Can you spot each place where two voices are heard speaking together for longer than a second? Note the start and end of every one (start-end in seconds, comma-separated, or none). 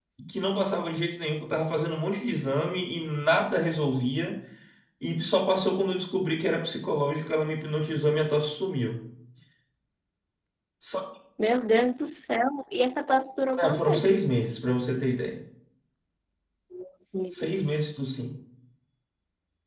none